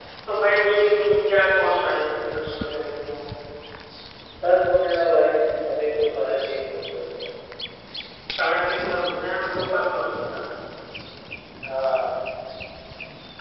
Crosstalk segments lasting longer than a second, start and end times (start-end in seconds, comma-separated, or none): none